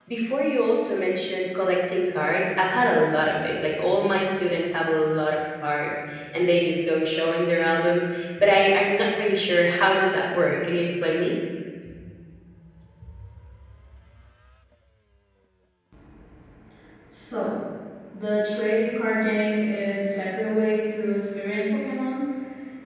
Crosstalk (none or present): none